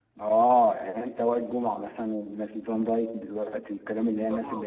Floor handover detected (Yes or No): Yes